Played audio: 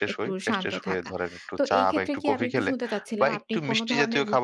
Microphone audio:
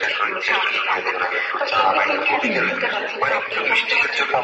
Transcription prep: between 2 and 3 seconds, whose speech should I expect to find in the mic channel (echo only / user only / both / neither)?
both